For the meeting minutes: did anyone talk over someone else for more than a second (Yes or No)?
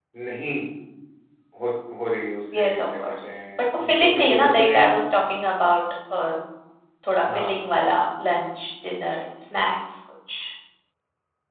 Yes